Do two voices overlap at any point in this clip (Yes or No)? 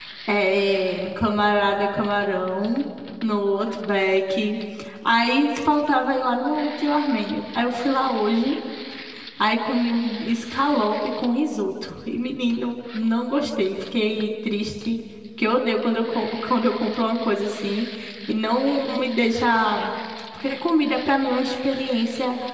No